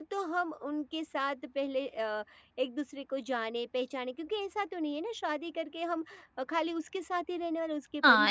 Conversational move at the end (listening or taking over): taking over